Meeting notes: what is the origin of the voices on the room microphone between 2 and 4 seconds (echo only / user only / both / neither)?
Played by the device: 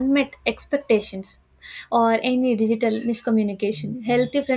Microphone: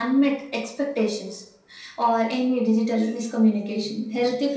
echo only